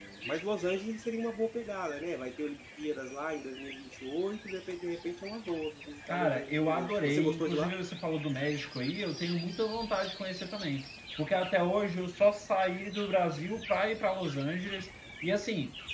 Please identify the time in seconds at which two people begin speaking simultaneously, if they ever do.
6 s

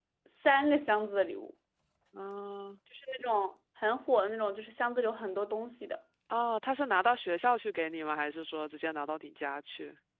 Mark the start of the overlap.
none

